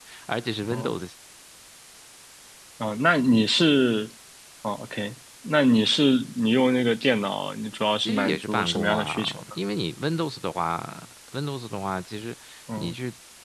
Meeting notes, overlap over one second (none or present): present